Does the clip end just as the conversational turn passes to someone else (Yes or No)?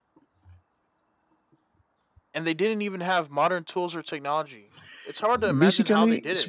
Yes